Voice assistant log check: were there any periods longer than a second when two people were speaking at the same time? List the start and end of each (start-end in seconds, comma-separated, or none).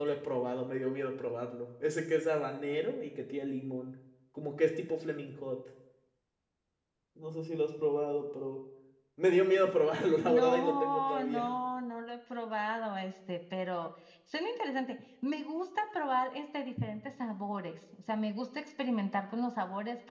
10.2-11.5